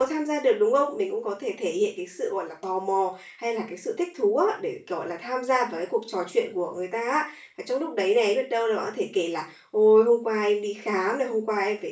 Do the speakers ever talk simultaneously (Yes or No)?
No